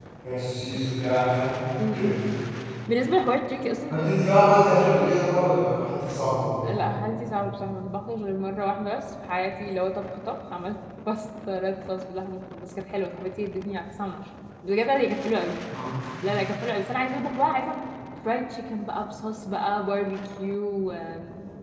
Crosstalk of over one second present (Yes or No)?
No